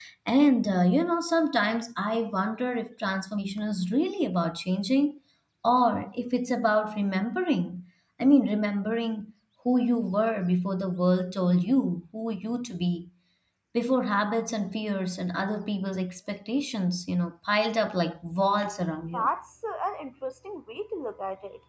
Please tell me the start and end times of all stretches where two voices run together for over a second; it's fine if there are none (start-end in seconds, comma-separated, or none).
none